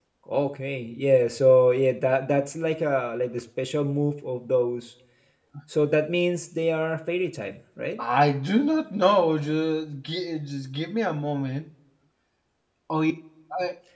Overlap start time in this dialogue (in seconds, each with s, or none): none